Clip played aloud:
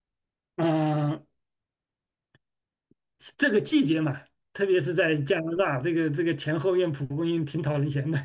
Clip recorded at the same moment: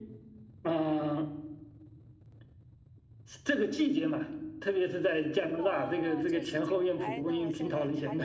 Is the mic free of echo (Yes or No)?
No